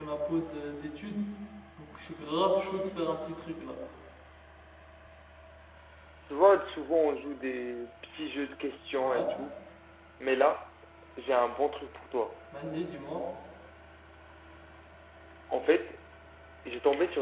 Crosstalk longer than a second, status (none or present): none